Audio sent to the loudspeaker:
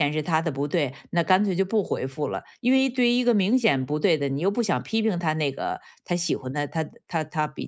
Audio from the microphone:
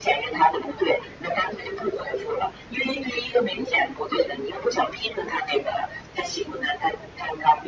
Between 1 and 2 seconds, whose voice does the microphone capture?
echo only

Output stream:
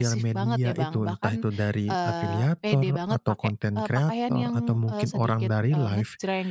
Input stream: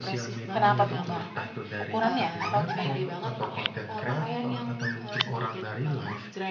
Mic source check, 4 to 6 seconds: echo only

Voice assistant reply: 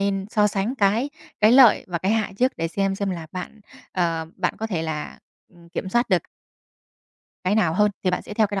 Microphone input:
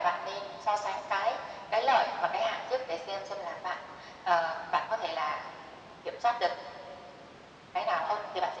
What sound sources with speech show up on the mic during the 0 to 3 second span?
echo only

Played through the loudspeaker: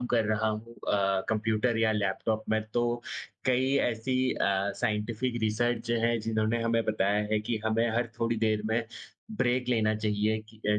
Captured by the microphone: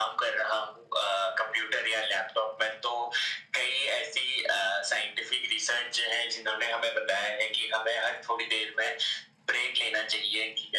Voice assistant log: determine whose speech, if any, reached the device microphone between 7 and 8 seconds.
echo only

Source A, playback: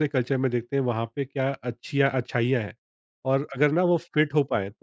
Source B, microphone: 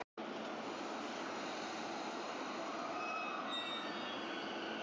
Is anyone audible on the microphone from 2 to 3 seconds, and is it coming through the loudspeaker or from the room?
neither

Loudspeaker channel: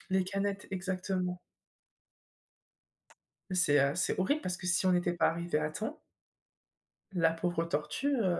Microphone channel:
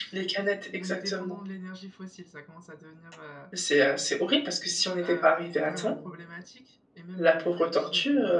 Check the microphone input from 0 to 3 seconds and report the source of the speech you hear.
both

